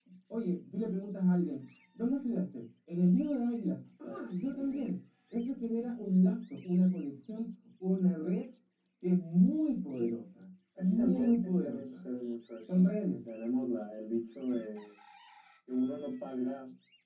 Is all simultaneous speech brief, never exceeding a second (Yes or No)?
No